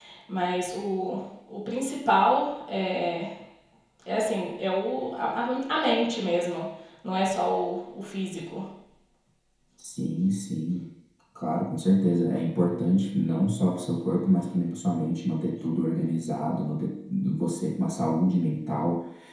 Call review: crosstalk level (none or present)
none